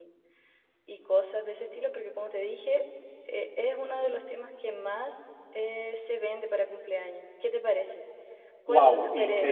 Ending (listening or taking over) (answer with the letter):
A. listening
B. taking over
B